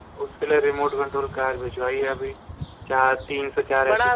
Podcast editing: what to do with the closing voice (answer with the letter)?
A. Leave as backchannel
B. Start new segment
B